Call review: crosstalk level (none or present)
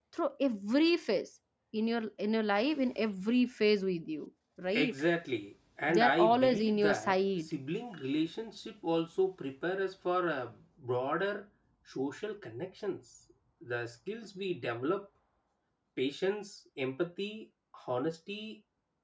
present